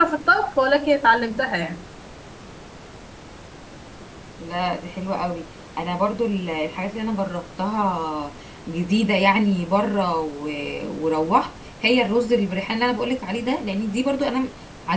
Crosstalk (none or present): none